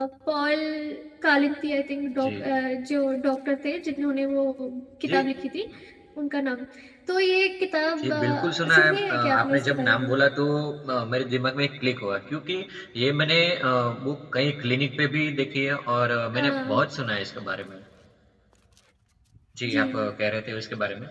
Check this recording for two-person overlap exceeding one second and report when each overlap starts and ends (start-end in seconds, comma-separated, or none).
8.0-10.1